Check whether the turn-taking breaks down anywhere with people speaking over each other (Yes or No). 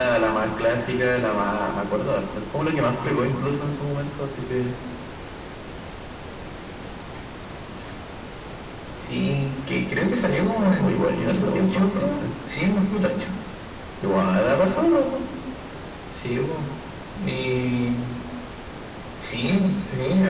Yes